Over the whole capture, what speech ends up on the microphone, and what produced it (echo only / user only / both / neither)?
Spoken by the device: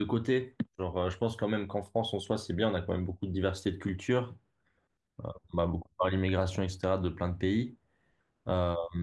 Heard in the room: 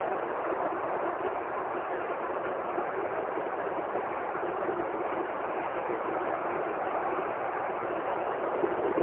neither